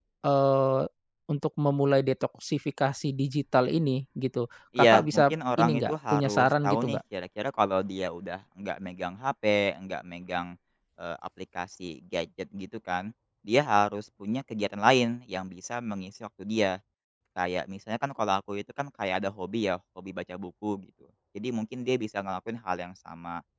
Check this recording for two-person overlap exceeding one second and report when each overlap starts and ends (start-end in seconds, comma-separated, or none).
4.8-7.0